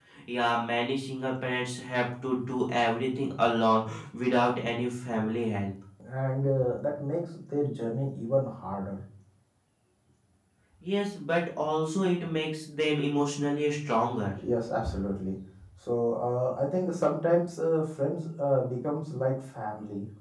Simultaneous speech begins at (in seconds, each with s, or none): none